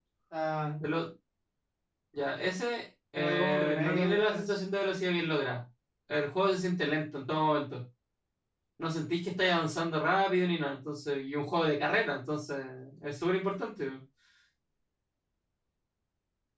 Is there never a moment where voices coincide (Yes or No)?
No